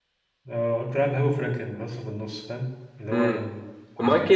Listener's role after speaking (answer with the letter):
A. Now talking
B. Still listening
A